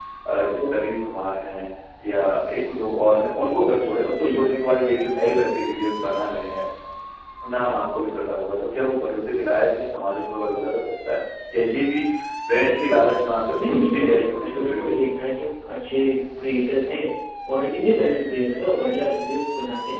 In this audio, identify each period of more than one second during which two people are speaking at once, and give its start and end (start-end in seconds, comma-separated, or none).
13.5-15.1